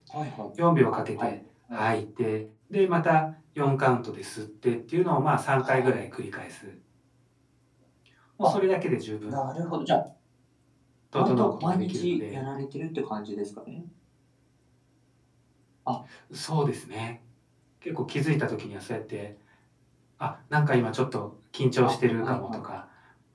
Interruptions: present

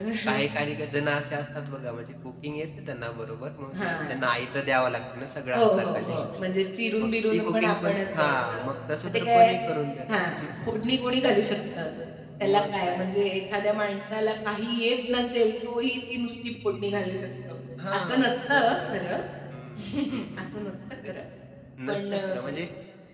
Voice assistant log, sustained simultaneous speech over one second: present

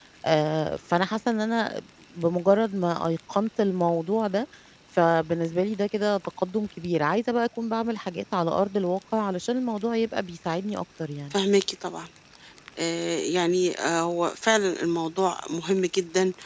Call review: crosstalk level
none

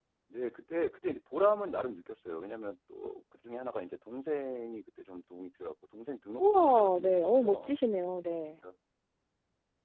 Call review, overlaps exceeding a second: present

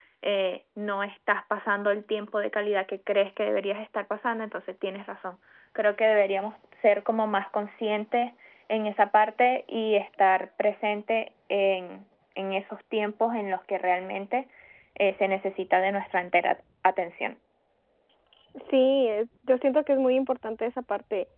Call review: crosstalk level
none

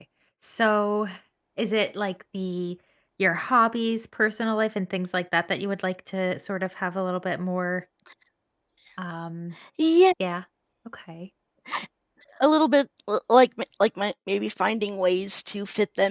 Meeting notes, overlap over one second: none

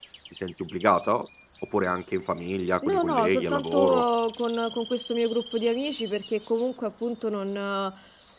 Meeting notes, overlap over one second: present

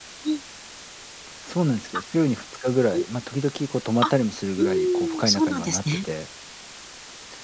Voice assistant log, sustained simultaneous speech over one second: present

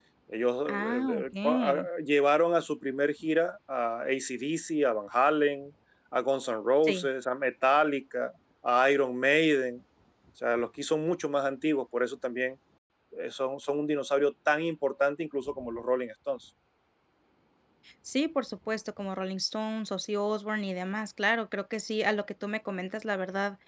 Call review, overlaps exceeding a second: present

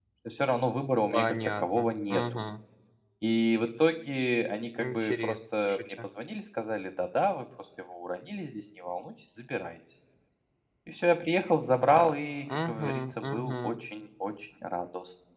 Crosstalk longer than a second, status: present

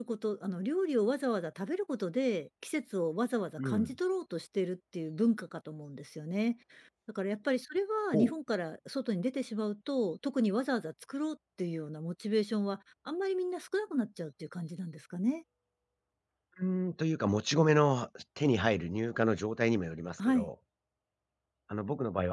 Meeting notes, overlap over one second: none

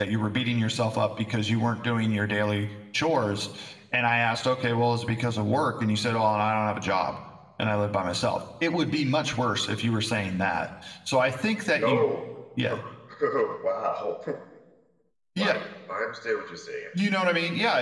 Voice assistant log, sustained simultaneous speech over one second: none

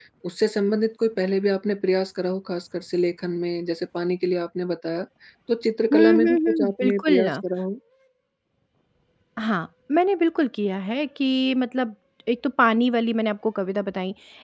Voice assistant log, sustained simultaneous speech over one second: present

